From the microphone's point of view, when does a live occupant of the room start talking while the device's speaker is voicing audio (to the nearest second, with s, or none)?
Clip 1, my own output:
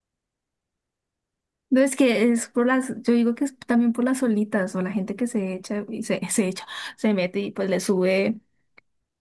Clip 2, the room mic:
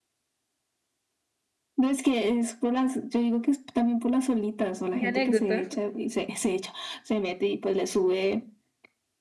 5 s